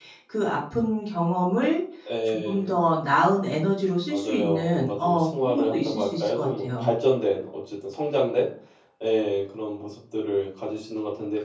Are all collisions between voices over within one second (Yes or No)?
No